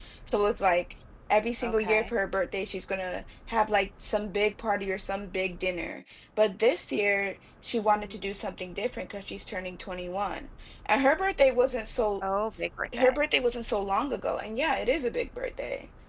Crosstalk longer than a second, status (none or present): none